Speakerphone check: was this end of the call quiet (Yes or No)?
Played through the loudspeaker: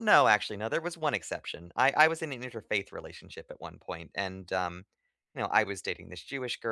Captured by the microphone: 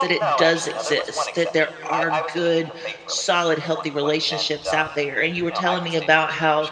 No